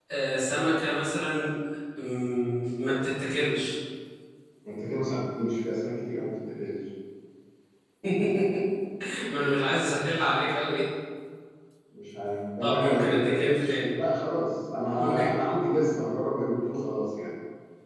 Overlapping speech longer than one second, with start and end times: 12.6-13.9

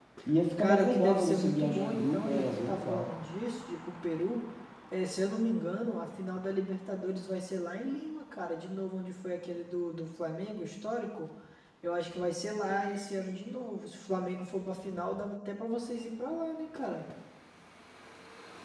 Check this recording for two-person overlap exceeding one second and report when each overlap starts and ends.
0.6-3.1

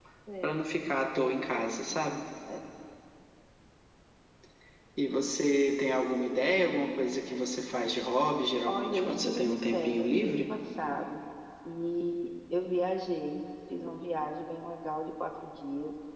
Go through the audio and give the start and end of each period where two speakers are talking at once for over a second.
8.7-10.3

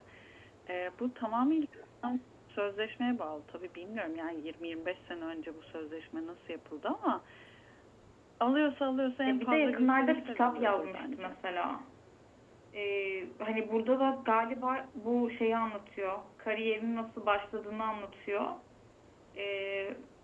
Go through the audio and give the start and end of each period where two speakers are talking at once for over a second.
9.3-11.3

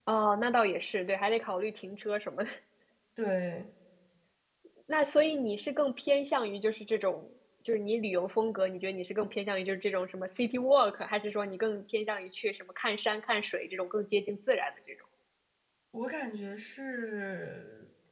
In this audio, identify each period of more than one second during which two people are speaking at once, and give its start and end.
none

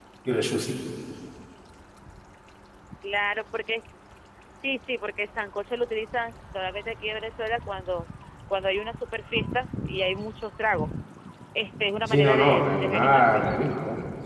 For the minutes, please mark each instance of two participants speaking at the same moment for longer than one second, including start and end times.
12.1-13.4

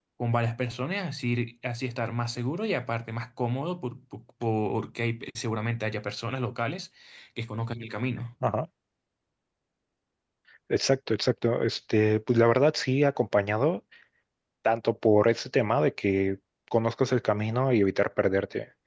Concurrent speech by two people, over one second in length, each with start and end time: none

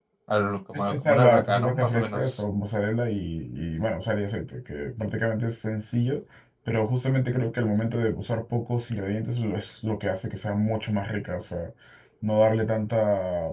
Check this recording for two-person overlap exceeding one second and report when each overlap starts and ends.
0.7-2.4

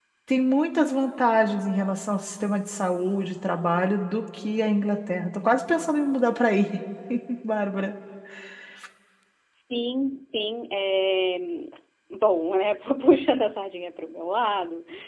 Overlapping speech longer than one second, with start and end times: none

